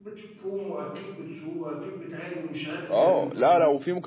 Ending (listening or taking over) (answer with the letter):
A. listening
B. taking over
B